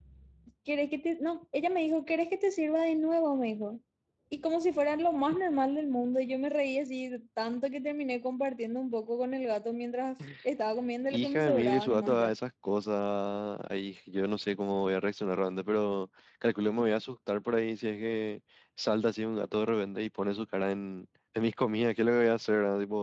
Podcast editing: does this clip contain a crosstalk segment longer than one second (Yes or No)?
Yes